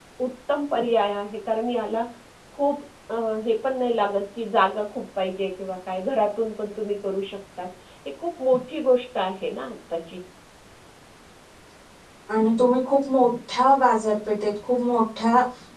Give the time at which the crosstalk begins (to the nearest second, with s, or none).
none